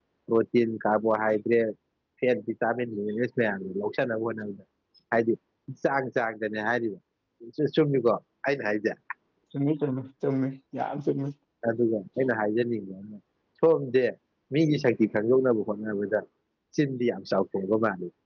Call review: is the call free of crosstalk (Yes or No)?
Yes